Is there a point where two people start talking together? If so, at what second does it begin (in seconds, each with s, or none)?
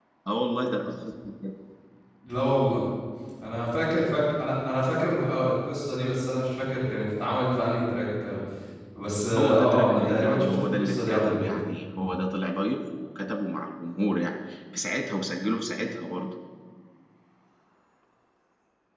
9.3 s